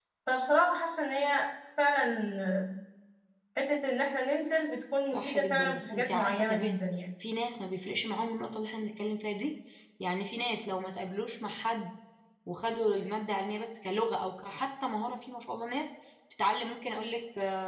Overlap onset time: 5.1 s

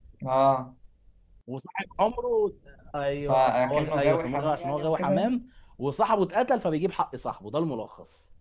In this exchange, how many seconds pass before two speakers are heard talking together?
3.3 s

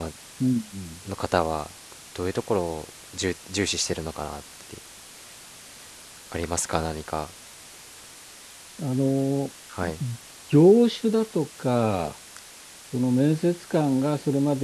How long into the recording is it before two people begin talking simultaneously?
none

